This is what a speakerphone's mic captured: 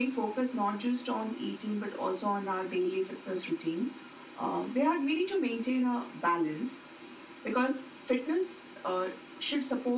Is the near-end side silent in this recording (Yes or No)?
Yes